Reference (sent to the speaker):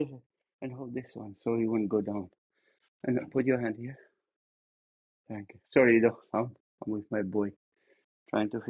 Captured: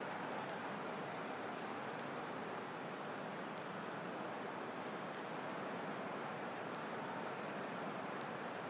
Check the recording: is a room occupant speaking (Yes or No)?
No